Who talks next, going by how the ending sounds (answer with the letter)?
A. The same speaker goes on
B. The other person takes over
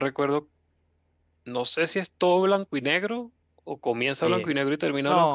B